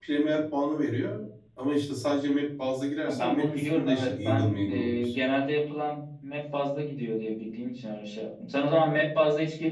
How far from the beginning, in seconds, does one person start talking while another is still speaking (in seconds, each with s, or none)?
3.1 s